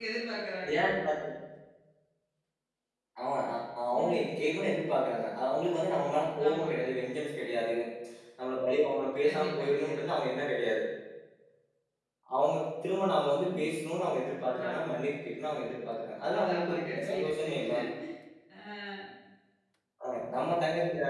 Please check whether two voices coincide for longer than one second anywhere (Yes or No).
Yes